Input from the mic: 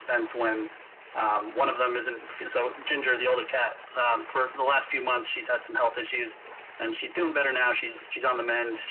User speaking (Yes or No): No